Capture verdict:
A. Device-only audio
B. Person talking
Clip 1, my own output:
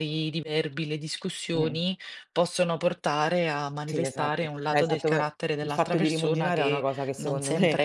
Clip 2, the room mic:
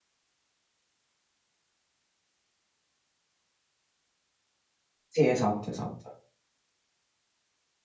B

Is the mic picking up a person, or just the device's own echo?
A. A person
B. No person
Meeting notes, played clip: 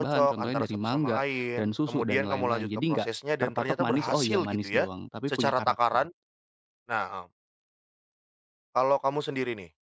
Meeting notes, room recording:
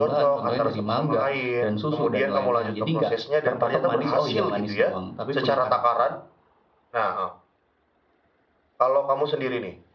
B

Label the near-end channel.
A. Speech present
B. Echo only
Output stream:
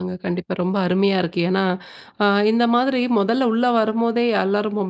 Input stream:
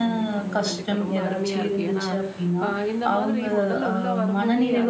A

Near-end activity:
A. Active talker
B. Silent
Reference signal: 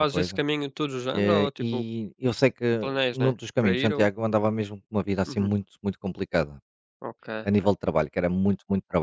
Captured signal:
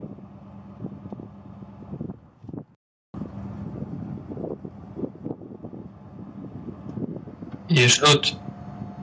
A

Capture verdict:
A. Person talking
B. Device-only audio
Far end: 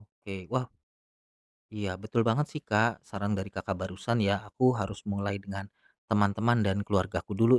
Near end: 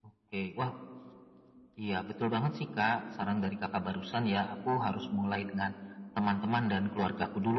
B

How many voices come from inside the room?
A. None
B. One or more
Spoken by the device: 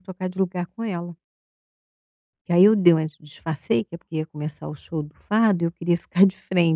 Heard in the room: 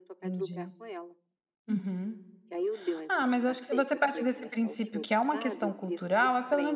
B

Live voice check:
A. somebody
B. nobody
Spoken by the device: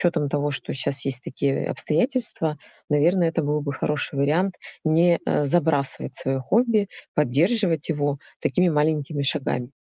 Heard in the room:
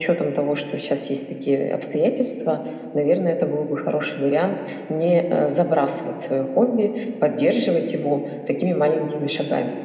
B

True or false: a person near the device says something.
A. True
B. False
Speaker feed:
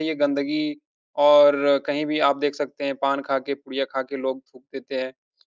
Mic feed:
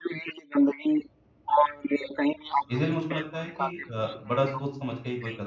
A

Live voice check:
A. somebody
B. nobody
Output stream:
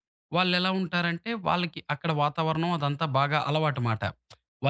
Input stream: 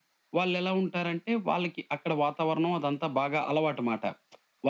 B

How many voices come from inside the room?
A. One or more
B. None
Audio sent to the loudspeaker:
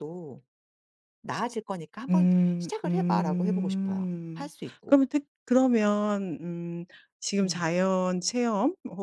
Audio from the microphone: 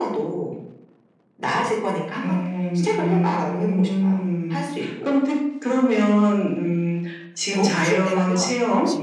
A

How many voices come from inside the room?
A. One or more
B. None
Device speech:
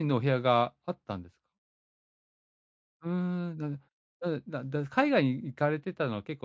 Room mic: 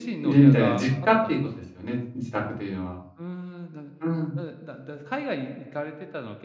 A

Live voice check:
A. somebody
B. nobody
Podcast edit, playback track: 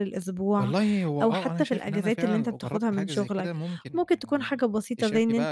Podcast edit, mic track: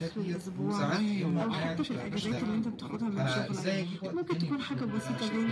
A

